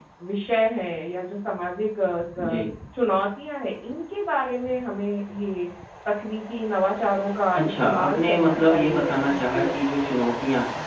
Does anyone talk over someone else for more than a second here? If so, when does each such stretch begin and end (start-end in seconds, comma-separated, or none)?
7.5-9.7